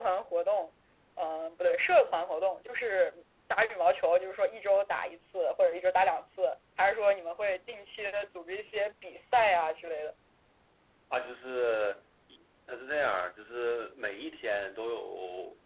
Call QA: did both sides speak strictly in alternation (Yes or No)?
Yes